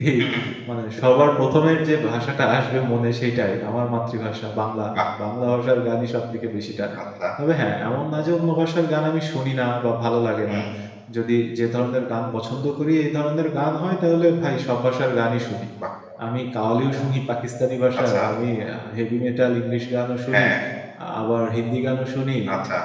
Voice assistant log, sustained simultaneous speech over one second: none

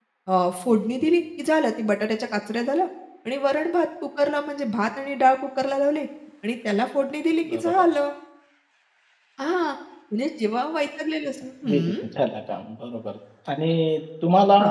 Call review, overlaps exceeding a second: none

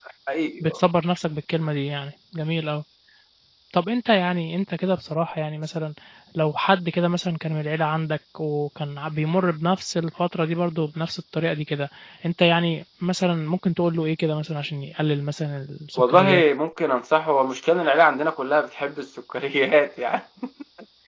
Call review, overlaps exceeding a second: none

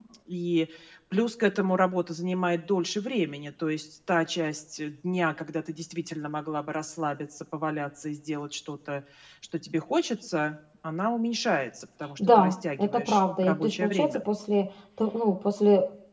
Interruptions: present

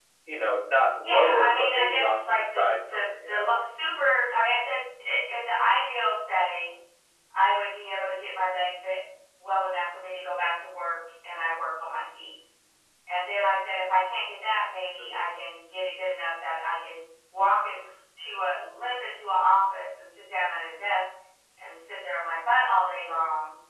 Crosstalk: present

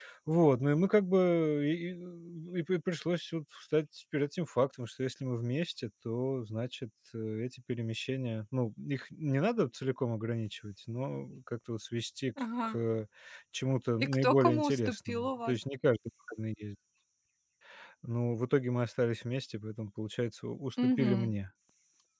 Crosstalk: present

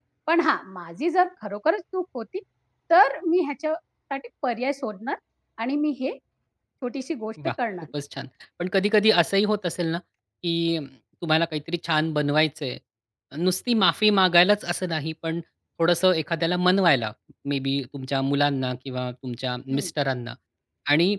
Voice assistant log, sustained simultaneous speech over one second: none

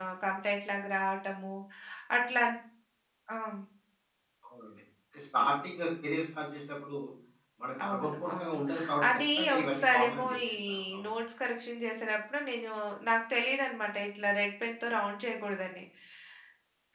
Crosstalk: present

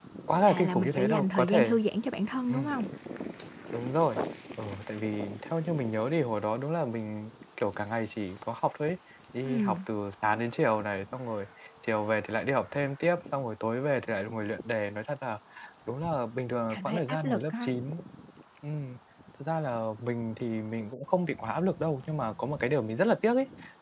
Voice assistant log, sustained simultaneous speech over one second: present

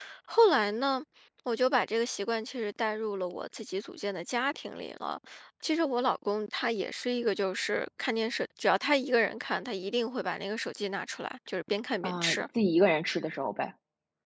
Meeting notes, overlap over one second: none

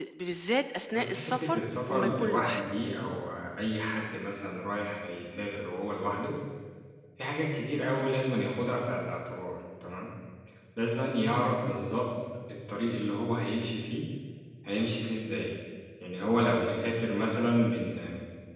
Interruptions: present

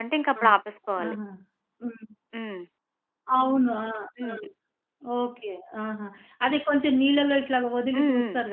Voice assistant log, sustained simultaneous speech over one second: none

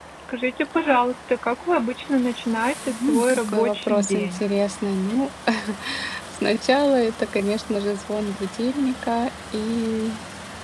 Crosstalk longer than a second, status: present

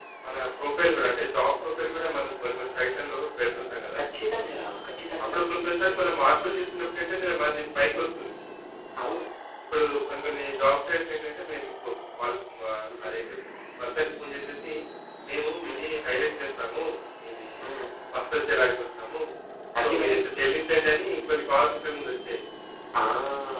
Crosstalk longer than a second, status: none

